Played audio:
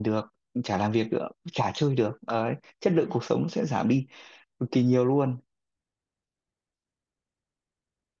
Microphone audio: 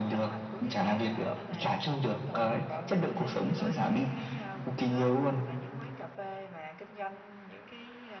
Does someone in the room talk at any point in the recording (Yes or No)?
Yes